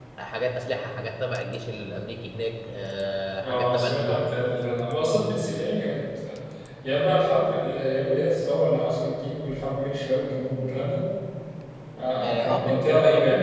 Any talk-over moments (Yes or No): Yes